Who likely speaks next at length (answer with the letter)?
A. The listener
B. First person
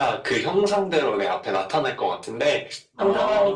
B